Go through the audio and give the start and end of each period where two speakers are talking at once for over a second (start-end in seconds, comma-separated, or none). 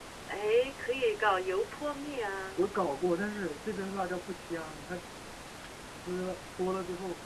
none